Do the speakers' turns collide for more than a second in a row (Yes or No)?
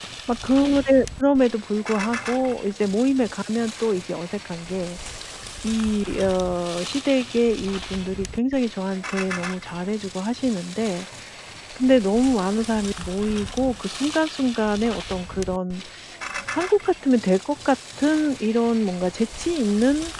No